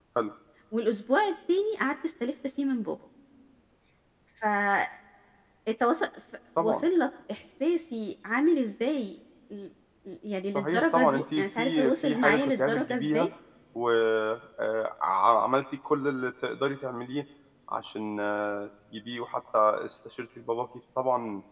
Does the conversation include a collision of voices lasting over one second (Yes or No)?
Yes